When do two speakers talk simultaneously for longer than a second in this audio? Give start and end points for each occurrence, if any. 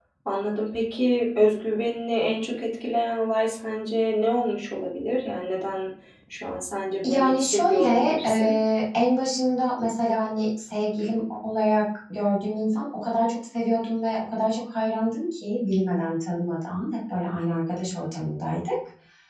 7.1-8.5

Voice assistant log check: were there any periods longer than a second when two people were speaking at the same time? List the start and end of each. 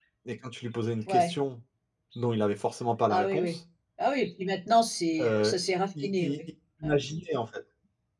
none

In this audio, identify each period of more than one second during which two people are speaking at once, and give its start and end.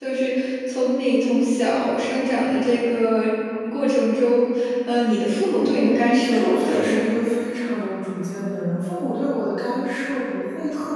5.8-7.2

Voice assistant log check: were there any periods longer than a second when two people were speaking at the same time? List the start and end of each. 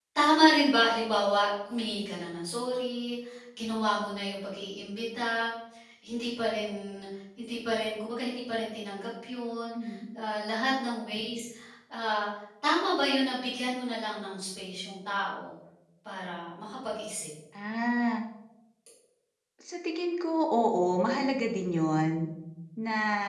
none

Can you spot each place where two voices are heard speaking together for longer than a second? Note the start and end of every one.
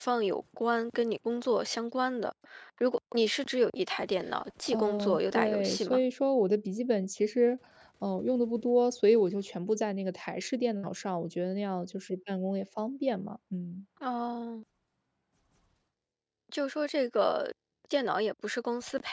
4.7-6.0

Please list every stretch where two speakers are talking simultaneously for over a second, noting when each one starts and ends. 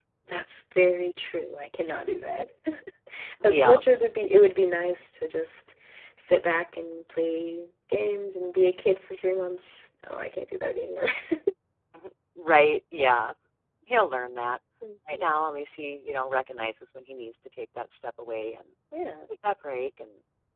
none

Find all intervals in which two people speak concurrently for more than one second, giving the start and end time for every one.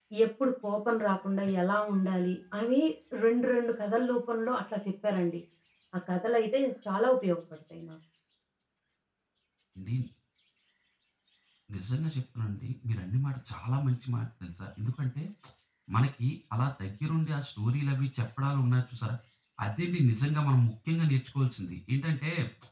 none

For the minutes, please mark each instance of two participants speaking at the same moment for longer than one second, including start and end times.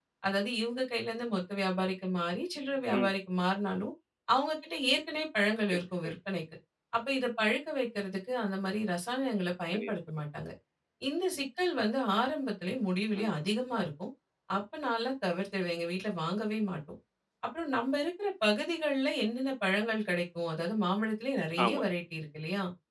none

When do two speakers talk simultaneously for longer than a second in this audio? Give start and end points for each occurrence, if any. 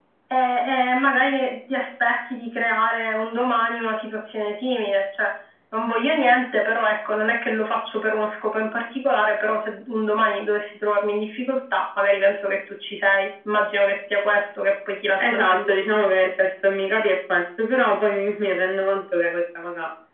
none

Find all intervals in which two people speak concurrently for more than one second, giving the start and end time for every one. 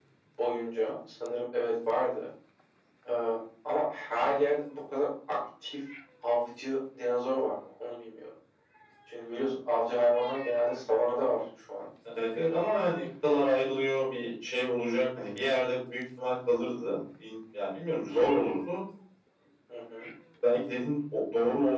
none

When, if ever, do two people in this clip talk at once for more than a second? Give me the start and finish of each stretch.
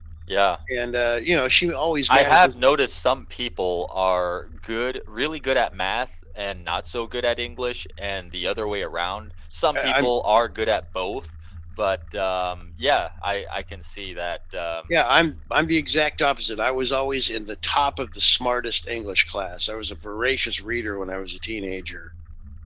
none

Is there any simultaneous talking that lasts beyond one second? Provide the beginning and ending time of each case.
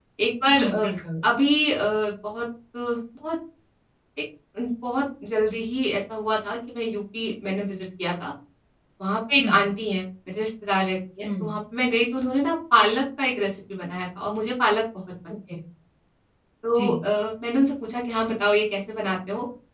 none

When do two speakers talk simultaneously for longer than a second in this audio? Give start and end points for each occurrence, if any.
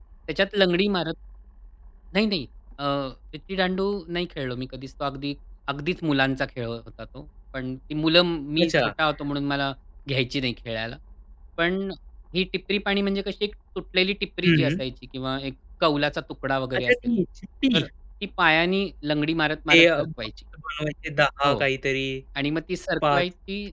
none

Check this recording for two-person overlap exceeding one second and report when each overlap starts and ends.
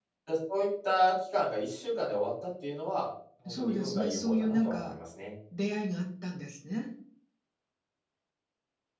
3.5-4.9

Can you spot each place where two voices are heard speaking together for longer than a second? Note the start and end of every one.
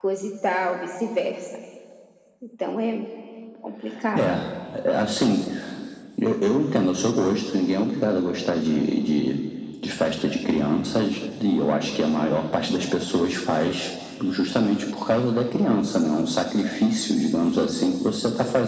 none

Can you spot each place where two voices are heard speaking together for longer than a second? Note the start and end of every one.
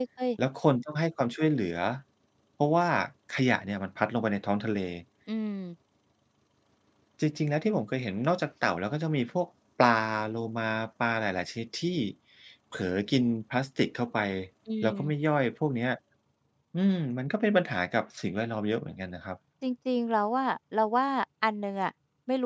none

